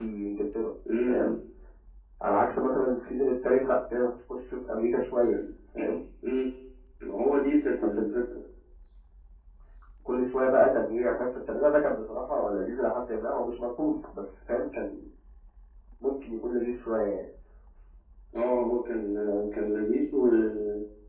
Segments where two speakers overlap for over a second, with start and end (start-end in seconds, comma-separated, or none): none